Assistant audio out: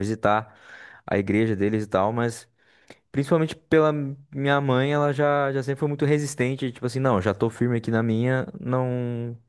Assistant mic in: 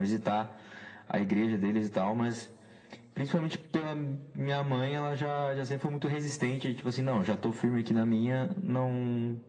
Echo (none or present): present